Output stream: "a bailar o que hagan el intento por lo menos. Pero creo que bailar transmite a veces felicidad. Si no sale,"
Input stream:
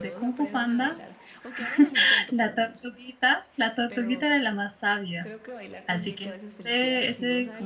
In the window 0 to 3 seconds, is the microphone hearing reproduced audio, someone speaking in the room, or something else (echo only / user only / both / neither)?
both